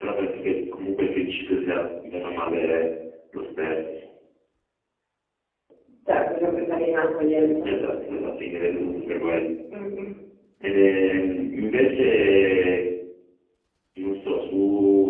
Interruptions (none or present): none